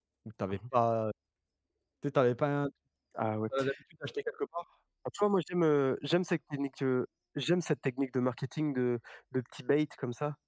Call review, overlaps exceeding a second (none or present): none